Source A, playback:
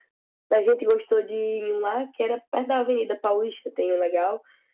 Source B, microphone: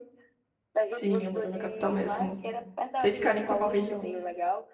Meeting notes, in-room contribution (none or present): present